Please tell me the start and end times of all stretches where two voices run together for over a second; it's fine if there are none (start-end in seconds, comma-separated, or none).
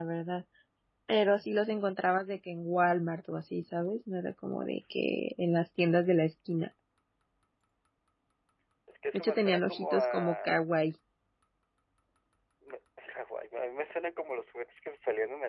9.1-10.6